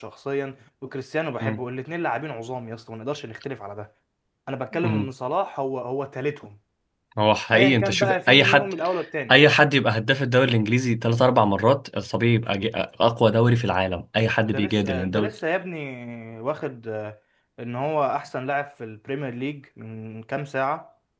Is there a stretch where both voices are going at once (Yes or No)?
Yes